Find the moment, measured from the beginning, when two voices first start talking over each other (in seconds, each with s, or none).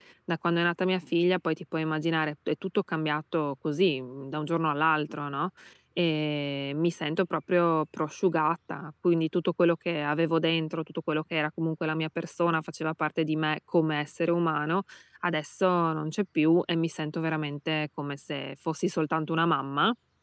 none